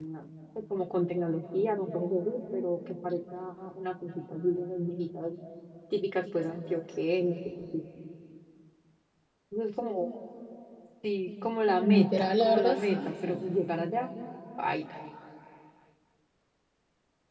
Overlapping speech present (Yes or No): Yes